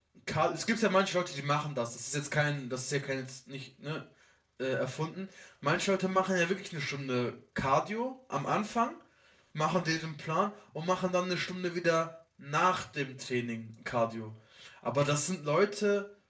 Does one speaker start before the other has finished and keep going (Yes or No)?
No